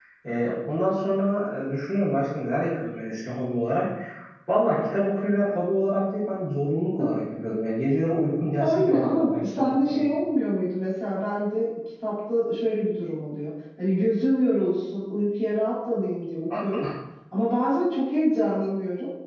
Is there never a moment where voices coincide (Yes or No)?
No